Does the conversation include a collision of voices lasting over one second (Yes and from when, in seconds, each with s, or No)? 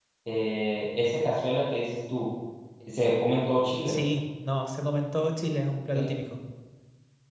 No